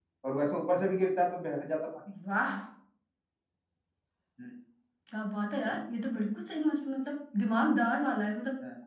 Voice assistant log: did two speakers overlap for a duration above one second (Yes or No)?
No